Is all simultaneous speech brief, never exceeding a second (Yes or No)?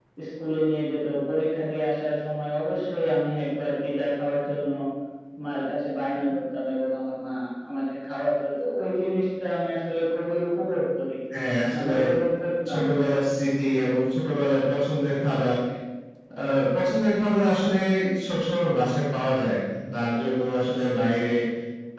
Yes